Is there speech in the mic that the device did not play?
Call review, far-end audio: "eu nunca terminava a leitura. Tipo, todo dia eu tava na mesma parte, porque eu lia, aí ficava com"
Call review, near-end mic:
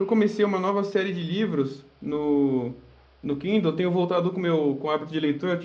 Yes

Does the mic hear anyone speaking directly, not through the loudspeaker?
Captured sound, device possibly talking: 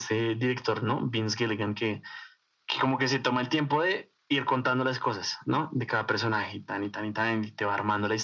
No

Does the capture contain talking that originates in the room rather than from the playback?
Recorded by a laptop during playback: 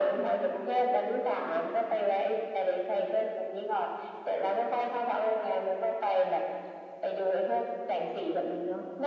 No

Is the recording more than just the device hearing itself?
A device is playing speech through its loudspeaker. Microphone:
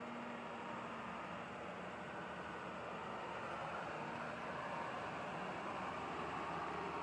No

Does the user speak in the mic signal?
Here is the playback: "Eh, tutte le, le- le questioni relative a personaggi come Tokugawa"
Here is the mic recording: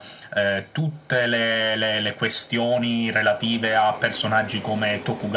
No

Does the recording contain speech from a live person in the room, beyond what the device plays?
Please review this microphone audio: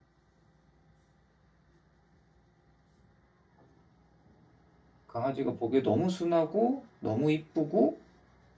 Yes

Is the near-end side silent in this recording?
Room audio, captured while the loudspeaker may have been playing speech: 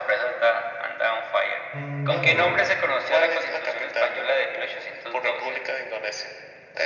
No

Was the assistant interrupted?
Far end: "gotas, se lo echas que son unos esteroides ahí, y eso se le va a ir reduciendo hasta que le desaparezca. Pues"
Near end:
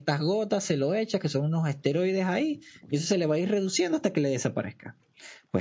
No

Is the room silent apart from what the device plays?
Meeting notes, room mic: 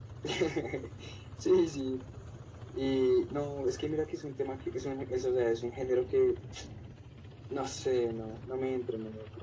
Yes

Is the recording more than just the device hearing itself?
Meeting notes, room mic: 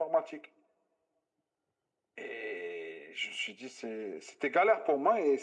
No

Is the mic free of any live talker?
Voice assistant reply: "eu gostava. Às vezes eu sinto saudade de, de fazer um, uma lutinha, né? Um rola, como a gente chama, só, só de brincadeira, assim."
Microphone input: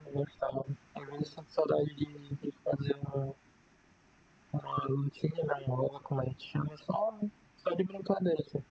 Yes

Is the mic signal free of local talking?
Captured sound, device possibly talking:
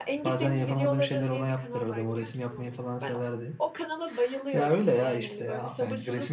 No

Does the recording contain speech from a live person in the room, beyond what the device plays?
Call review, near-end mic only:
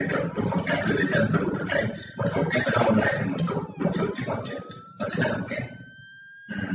No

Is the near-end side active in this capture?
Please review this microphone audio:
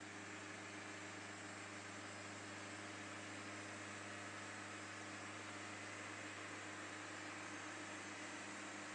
No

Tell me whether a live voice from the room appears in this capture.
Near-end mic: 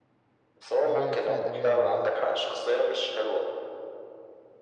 Yes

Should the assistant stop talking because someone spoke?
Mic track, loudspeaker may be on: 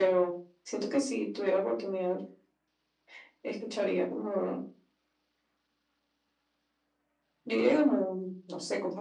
No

